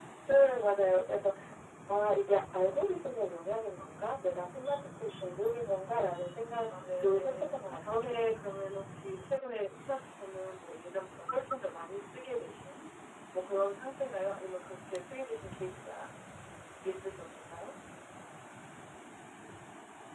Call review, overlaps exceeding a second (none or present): present